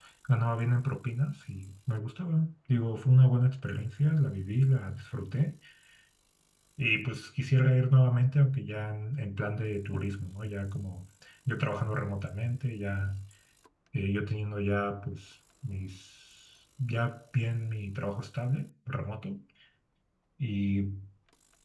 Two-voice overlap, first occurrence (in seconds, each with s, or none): none